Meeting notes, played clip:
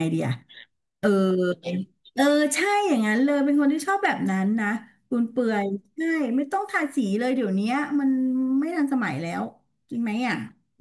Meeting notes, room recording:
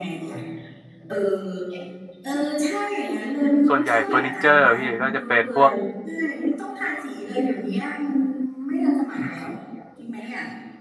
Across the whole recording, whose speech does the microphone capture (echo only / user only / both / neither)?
both